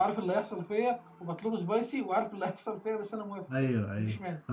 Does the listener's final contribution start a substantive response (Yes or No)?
Yes